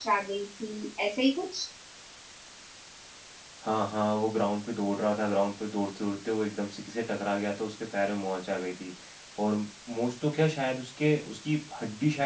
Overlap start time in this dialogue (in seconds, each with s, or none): none